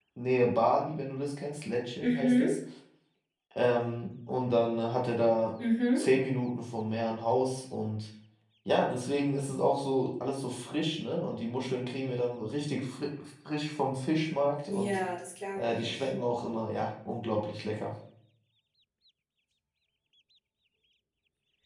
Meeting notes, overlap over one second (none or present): none